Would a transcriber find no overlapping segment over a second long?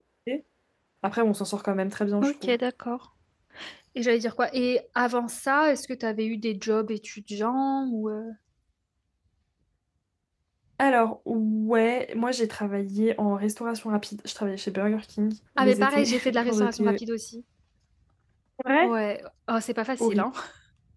No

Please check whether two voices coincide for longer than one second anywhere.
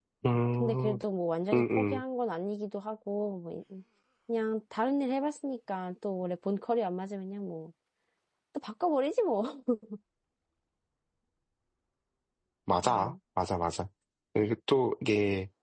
No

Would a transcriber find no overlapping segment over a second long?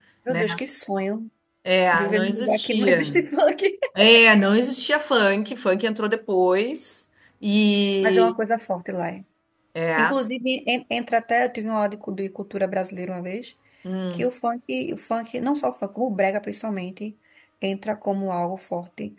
No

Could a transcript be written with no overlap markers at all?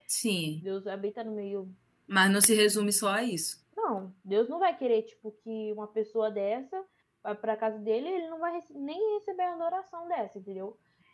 Yes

